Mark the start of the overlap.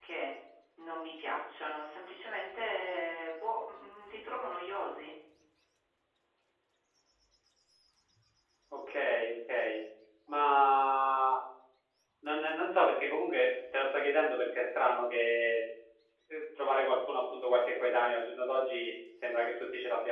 none

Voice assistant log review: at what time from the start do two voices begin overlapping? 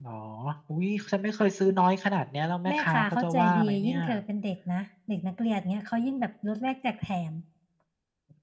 2.6 s

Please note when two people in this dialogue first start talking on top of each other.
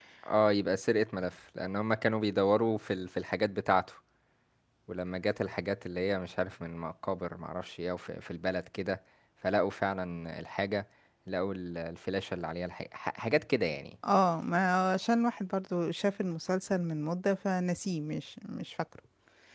none

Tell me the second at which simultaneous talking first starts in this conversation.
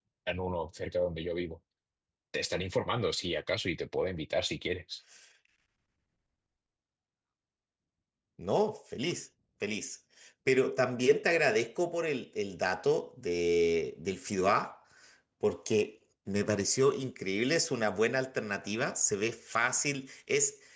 none

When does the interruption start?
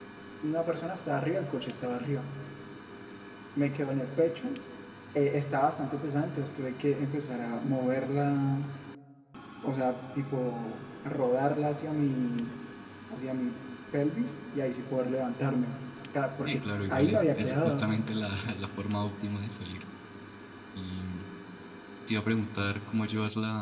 16.4 s

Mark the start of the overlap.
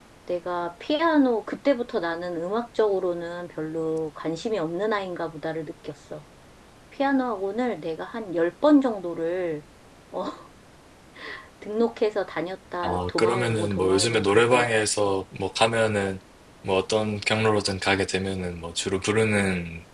12.8 s

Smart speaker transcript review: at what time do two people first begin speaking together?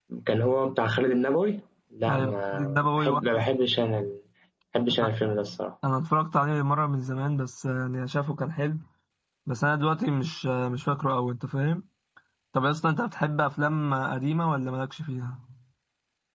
2.1 s

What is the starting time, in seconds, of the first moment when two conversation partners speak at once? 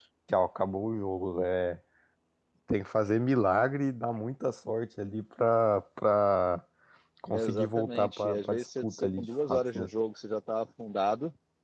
7.3 s

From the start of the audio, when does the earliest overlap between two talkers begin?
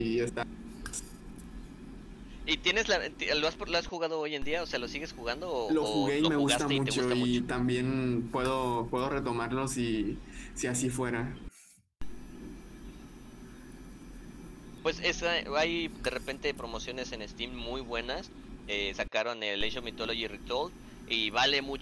5.7 s

